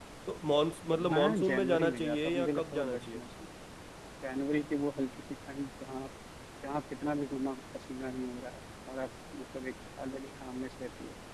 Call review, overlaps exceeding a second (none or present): present